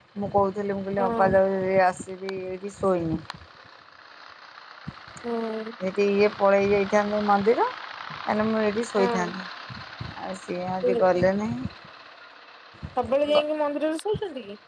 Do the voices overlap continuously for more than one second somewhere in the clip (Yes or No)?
No